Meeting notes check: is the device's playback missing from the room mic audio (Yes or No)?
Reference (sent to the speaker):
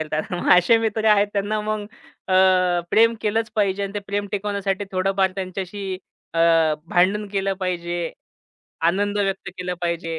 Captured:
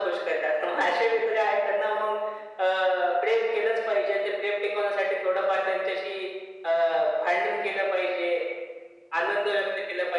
No